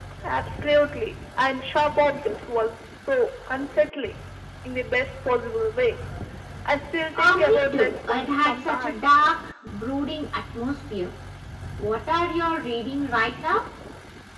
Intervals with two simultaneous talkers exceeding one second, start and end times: 7.2-9.2

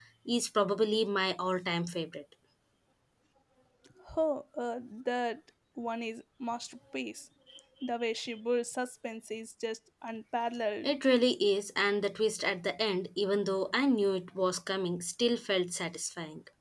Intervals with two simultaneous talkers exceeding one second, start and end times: none

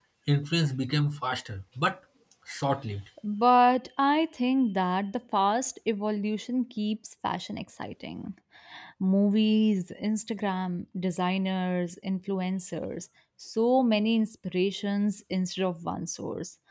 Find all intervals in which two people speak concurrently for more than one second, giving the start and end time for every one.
none

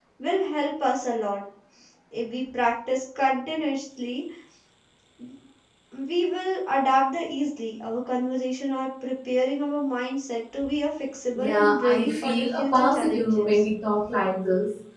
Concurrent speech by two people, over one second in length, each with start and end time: 11.3-13.6

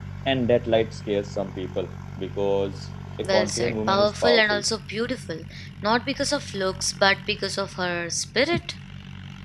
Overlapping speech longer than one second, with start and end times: 3.2-4.6

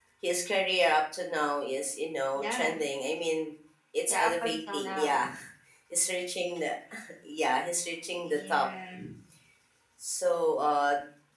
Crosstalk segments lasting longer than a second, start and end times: 4.1-5.3

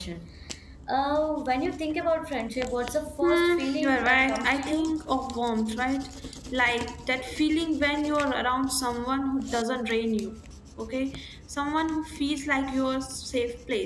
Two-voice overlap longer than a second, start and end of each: 3.2-4.9

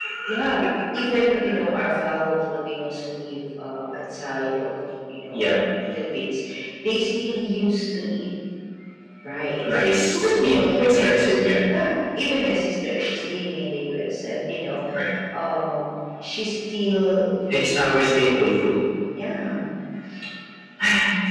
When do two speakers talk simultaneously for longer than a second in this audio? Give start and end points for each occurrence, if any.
9.6-11.6

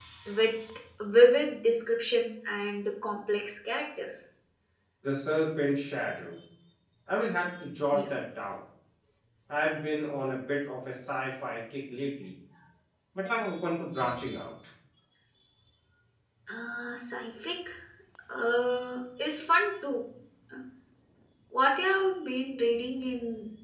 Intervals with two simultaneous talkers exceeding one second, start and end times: none

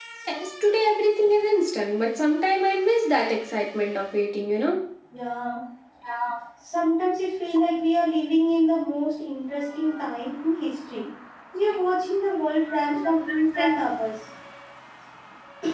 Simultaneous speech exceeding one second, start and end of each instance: none

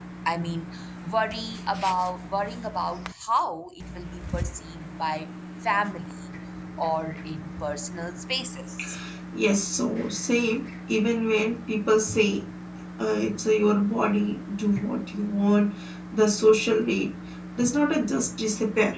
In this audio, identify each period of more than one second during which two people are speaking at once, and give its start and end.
none

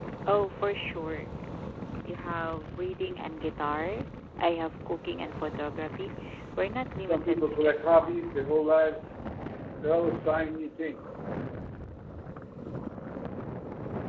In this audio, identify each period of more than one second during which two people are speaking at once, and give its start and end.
7.0-8.3

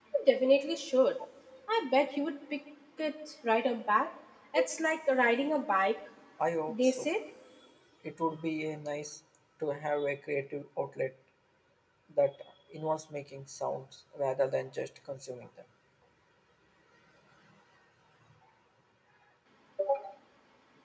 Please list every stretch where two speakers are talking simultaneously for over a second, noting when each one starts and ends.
none

